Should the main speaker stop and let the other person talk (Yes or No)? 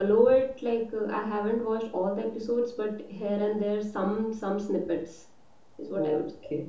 Yes